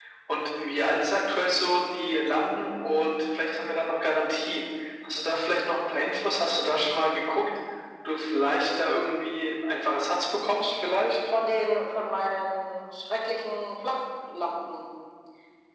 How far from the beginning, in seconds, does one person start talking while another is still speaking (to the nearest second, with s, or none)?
none